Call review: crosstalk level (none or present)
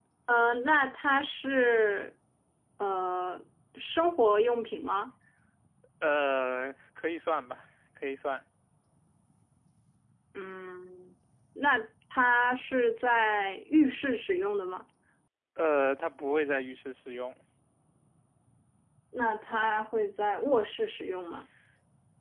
none